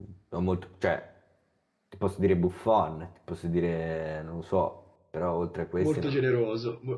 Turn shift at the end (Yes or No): Yes